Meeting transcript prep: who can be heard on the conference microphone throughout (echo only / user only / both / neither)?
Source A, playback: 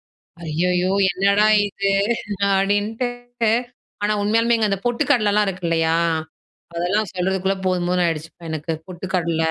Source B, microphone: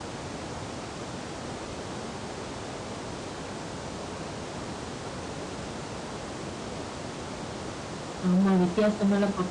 user only